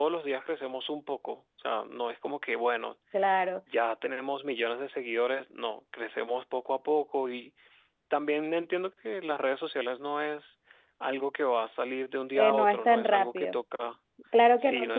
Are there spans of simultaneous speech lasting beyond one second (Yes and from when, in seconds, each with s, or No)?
Yes, from 12.3 s